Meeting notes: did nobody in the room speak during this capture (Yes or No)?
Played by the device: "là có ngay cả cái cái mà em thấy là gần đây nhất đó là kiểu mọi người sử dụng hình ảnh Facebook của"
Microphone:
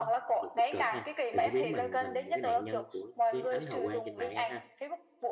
No